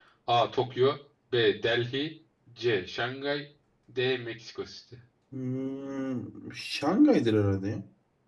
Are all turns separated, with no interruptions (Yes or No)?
Yes